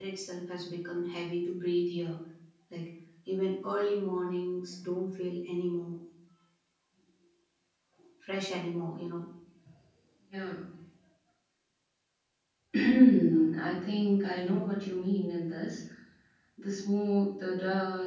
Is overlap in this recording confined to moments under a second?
Yes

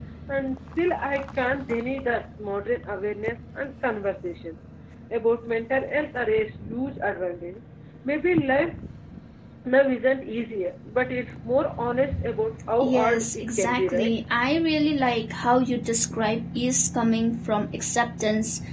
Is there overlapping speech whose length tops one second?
Yes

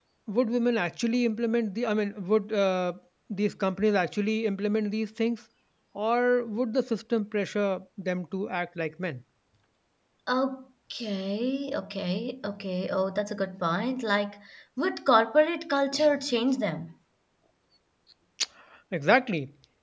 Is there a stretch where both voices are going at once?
No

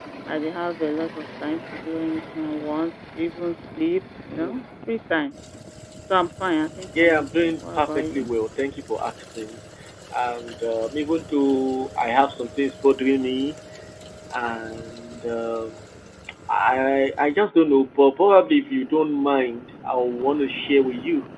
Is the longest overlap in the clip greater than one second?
Yes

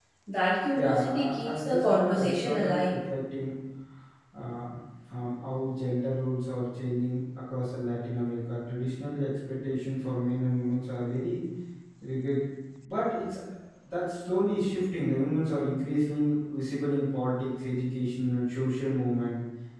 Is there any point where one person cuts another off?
Yes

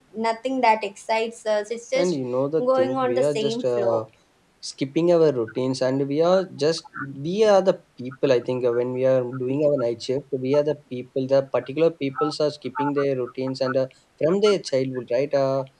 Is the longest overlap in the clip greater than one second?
Yes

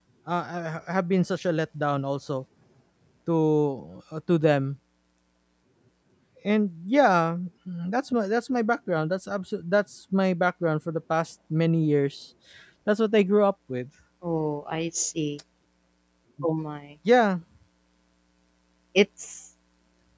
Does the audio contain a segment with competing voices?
No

